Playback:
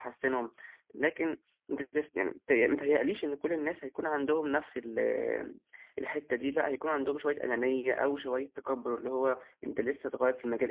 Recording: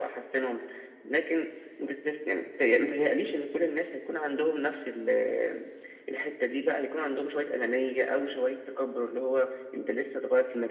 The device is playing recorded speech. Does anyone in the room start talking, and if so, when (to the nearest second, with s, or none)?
none